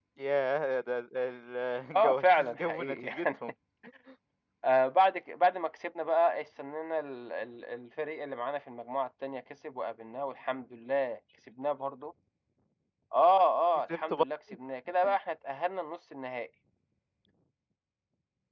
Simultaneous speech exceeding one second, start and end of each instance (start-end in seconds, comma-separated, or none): 2.0-3.3